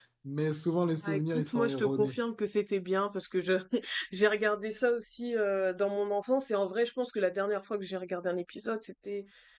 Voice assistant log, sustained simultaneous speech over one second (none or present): present